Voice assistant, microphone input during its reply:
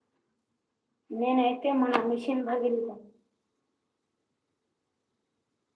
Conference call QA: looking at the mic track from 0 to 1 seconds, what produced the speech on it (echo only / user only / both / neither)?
neither